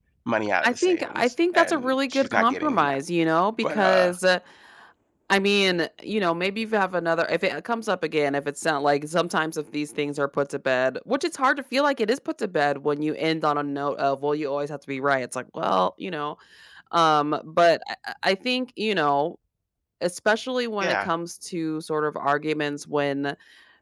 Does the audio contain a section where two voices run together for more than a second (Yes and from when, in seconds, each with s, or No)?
Yes, from 0.6 s